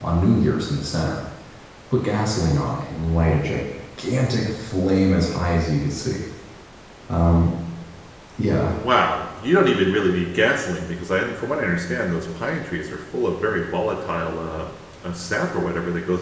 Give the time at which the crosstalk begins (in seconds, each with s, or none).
none